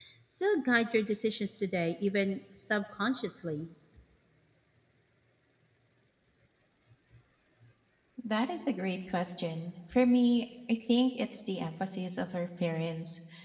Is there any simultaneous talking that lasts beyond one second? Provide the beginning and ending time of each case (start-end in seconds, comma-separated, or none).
none